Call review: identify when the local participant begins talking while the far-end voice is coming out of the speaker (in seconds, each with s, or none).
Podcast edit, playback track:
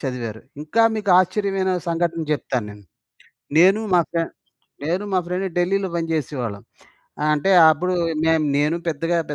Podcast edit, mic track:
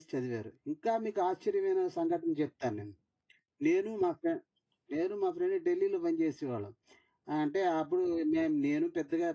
none